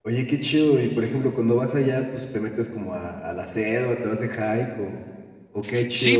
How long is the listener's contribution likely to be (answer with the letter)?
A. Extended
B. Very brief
A